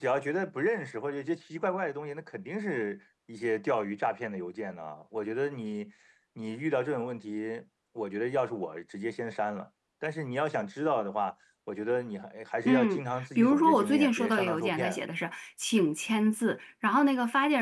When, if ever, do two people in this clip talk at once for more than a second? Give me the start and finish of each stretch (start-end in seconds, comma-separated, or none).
12.6-15.0